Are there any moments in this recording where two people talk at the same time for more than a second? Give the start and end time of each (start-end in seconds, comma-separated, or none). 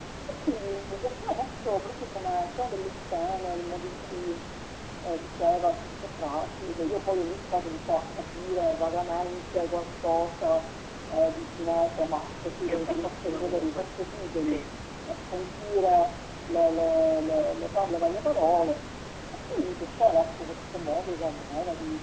12.7-13.9